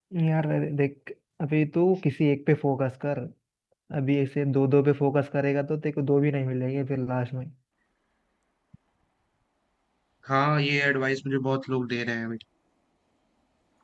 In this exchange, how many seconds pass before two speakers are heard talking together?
none

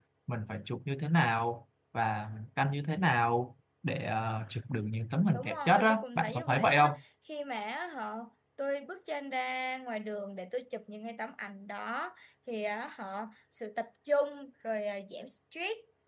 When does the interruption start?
5.3 s

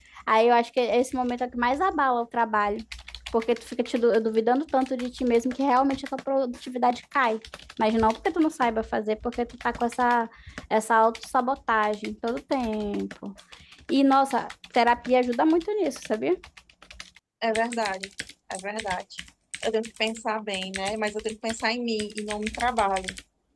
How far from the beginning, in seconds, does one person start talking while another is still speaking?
none

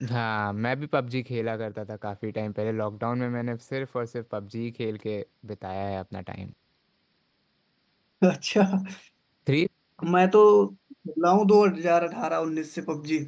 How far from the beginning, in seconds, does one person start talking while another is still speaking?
none

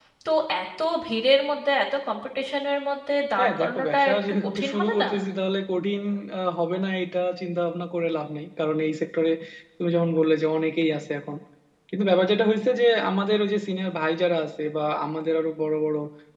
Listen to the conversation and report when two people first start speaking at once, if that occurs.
3.4 s

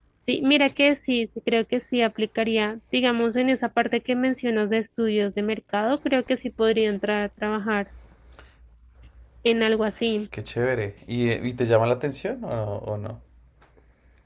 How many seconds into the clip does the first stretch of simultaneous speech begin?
none

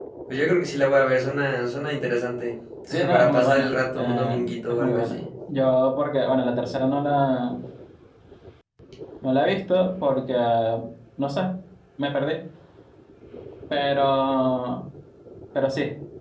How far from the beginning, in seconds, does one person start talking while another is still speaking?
3.1 s

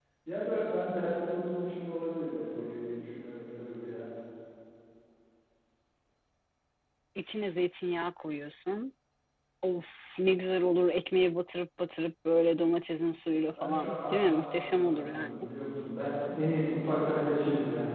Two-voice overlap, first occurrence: 13.6 s

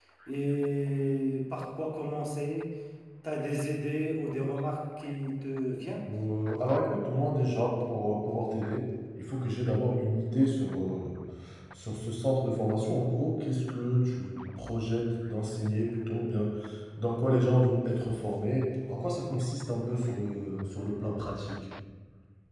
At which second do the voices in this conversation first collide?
none

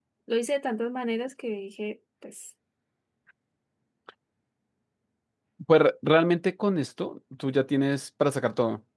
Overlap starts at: none

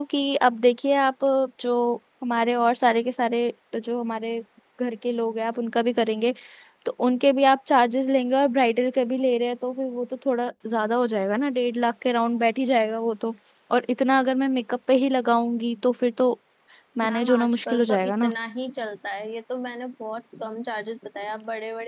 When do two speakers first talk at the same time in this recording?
17.0 s

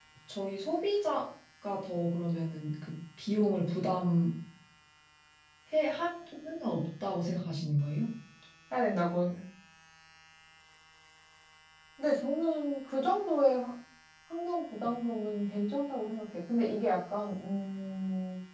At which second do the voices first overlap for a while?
none

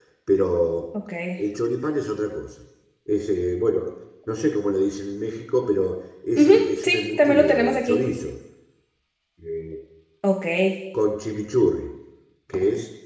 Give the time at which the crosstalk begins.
6.4 s

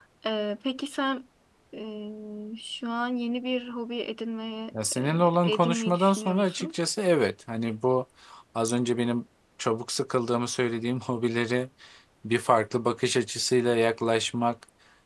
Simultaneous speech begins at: 4.7 s

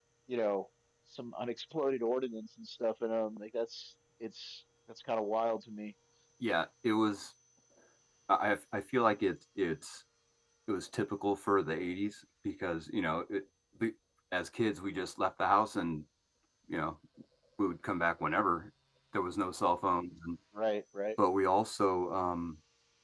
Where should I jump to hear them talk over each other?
none

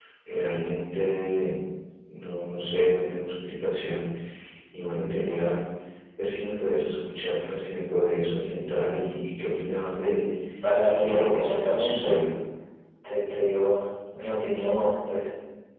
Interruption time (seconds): 11.0 s

